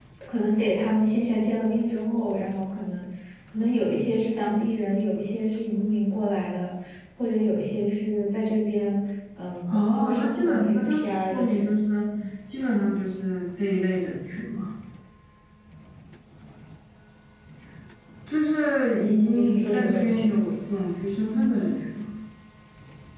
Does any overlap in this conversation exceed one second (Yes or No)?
Yes